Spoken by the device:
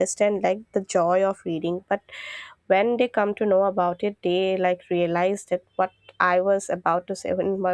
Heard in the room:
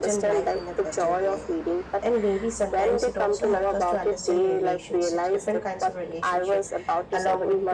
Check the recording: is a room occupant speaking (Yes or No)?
Yes